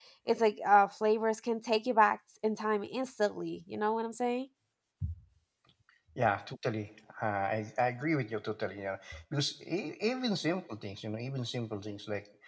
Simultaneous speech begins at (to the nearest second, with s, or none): none